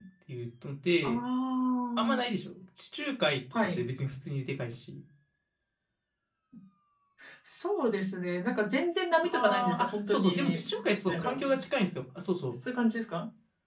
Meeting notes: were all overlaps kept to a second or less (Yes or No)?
No